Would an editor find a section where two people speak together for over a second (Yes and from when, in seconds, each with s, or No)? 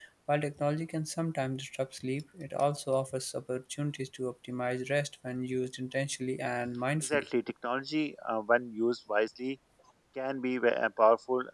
No